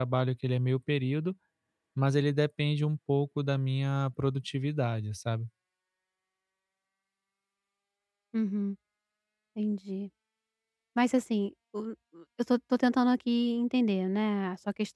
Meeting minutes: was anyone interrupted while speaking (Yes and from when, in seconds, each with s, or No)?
No